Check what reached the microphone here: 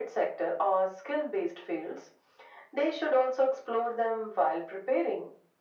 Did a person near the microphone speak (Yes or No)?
No